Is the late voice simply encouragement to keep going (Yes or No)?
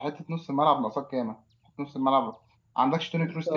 No